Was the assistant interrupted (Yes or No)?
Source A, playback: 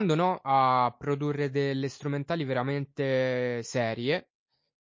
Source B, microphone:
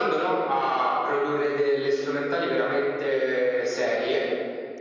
No